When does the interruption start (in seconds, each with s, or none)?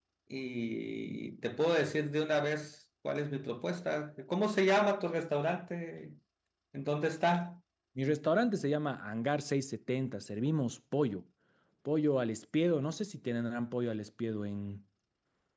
none